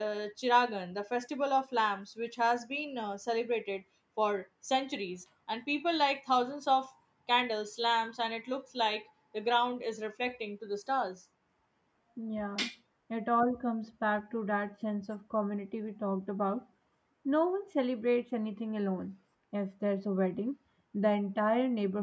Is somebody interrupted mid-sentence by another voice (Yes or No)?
No